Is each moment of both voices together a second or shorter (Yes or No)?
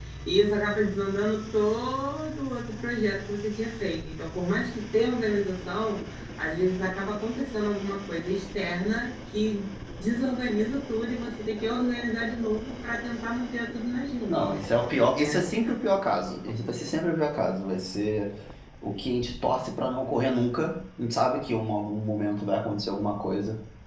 Yes